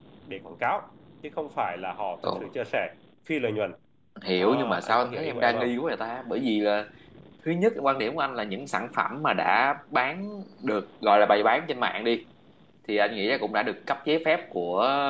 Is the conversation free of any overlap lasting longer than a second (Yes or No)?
No